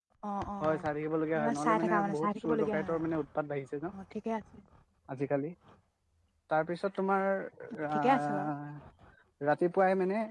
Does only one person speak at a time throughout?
No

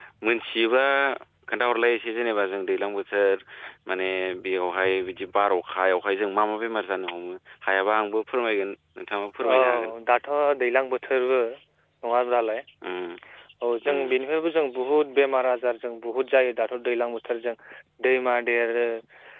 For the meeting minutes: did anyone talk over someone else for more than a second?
No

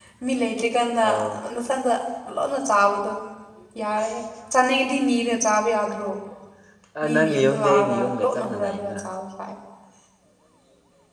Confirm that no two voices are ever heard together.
No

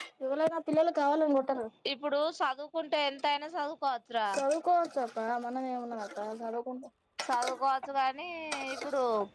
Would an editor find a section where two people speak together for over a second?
No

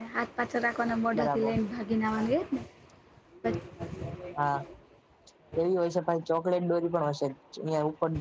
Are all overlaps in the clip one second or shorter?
Yes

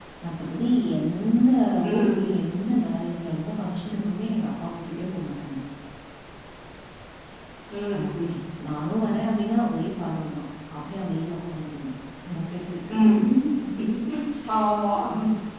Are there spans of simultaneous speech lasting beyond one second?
No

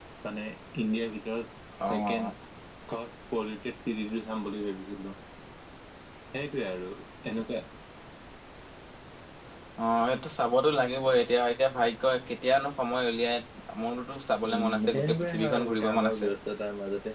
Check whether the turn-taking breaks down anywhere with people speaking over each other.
Yes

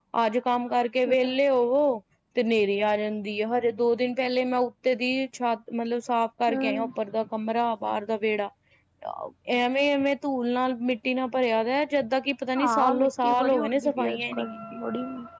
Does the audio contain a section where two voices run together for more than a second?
Yes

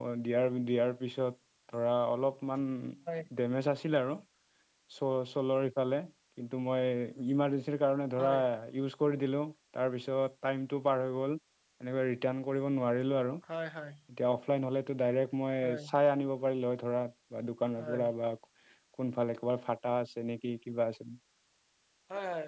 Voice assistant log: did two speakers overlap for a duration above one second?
No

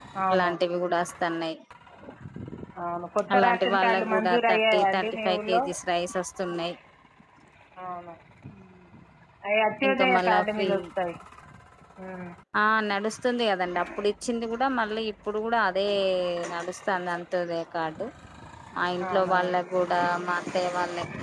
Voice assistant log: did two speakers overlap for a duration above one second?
Yes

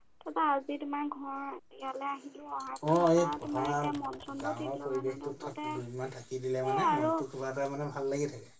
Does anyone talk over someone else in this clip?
Yes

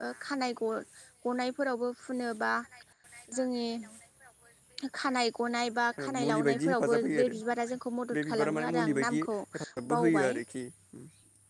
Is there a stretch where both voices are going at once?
Yes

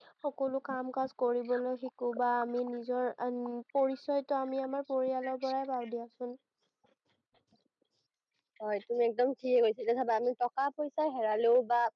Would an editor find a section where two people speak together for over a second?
No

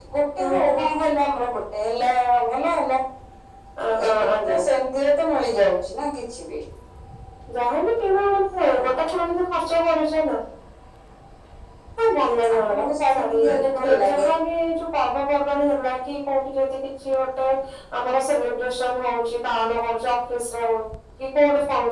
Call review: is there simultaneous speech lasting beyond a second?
Yes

